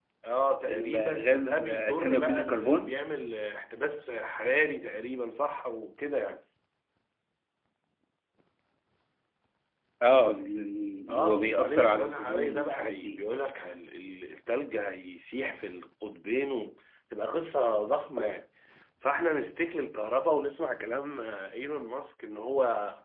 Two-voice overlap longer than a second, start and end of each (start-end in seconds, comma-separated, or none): 0.7-3.0, 11.1-13.2